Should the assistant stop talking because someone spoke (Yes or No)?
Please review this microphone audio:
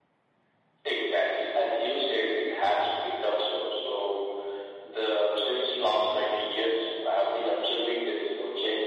No